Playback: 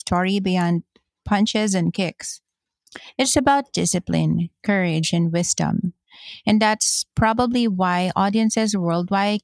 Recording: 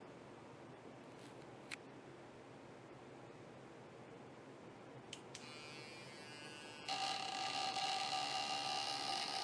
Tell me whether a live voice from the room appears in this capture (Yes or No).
No